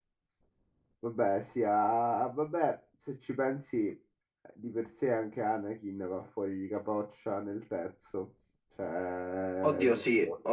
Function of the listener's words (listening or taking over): taking over